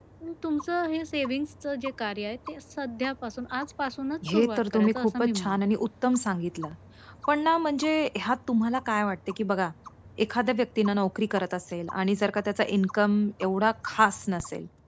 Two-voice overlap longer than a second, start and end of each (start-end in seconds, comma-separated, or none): 4.3-5.6